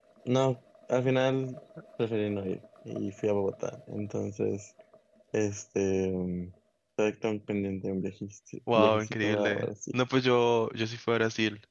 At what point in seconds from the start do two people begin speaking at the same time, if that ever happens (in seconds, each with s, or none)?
8.7 s